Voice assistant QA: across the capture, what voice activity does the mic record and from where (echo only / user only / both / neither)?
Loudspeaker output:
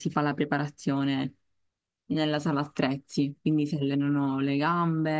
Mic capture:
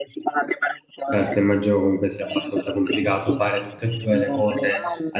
both